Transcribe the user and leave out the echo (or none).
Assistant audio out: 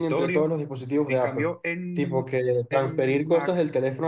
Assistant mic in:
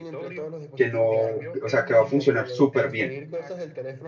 que no, o sea, que va a funcionar súper bien.